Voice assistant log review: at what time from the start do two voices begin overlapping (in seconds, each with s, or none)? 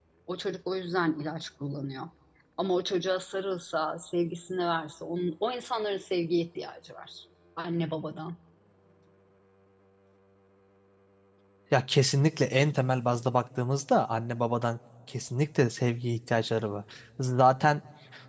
none